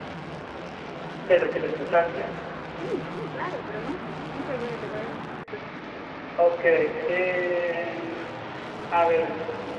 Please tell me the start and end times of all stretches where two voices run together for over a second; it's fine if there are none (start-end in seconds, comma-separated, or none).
none